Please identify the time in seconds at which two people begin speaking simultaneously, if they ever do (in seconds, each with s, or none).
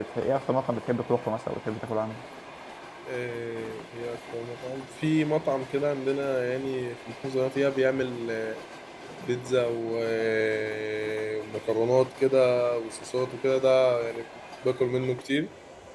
none